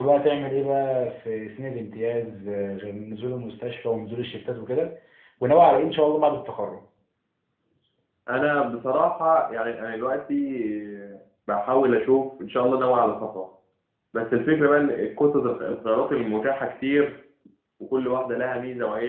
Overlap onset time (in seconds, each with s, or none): none